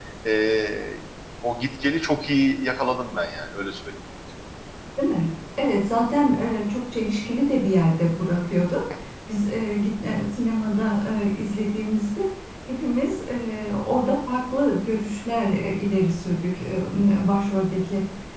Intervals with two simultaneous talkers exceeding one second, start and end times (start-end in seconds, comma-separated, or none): none